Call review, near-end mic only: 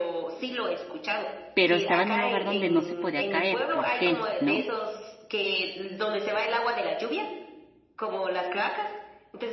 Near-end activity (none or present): present